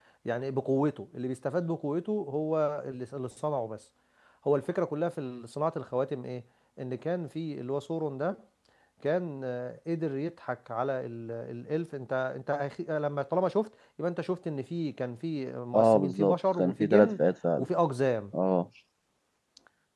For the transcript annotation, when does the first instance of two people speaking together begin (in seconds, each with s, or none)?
15.7 s